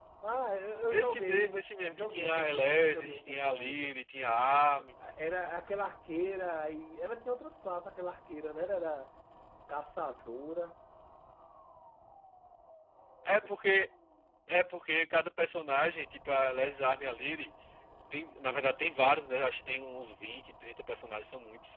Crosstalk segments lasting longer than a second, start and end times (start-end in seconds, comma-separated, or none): 0.9-3.9